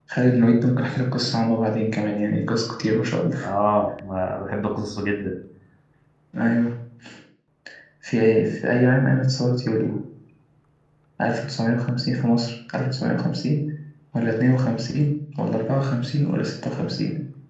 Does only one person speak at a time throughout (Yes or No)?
Yes